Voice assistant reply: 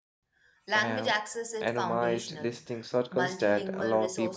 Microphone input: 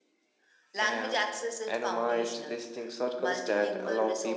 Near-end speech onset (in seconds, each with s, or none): none